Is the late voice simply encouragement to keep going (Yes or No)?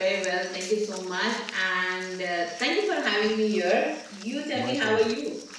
No